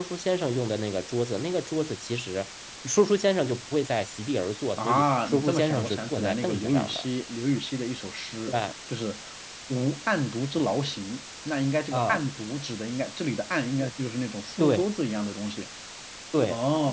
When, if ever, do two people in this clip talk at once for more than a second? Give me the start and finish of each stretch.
4.8-7.0

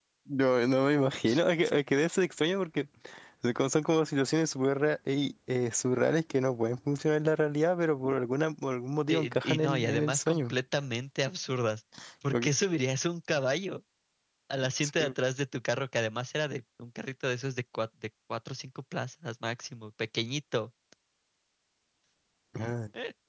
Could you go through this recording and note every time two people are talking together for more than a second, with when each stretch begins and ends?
9.1-10.6

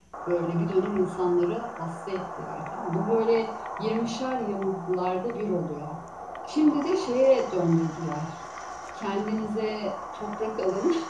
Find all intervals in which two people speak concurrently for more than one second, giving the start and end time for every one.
none

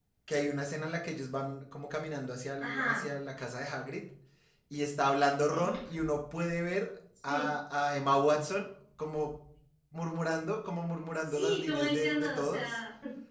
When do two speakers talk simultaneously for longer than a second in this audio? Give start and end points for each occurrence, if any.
11.1-12.8

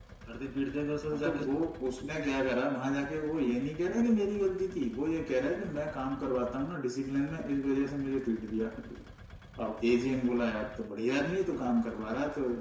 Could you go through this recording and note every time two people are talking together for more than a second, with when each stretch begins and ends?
none

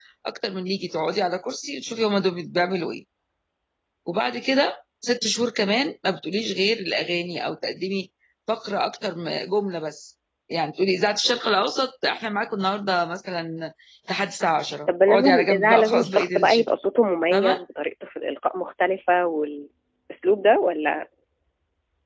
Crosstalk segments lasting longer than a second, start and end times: 14.9-16.6

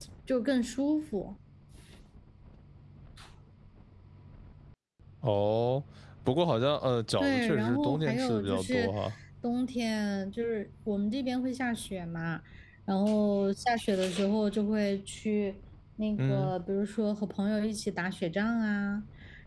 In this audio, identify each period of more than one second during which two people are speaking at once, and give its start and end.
7.2-8.9

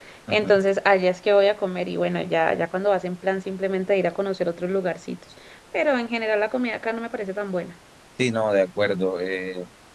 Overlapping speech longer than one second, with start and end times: none

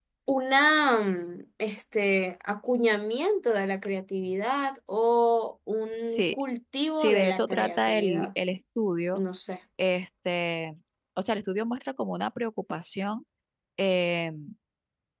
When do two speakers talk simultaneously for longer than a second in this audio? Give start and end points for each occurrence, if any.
7.0-8.3

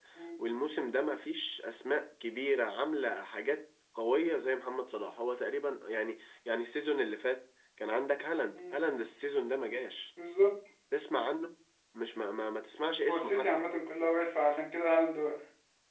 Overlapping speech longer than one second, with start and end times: none

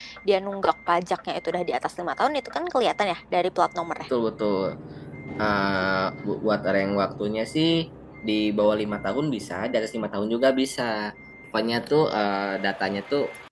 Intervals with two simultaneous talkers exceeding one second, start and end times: none

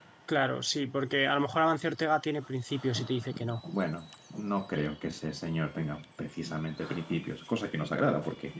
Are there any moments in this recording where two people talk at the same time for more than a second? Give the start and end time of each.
none

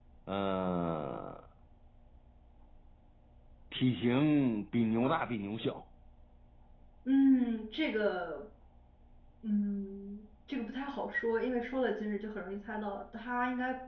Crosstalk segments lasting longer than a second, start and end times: none

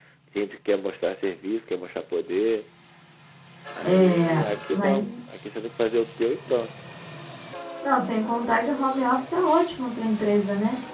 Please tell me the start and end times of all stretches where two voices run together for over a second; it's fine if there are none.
3.8-5.0

